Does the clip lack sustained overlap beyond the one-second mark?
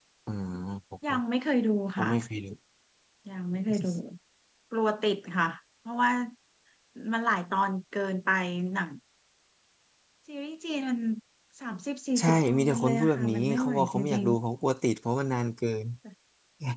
No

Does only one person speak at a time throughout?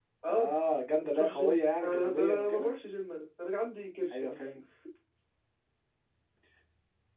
No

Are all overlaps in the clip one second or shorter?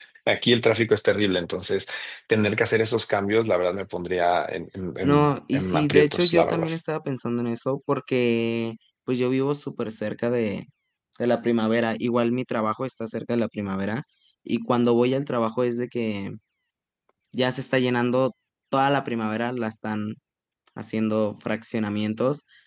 No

